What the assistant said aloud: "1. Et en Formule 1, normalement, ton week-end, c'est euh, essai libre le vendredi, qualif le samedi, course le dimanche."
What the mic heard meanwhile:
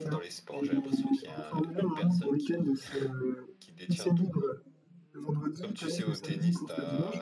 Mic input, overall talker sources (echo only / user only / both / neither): both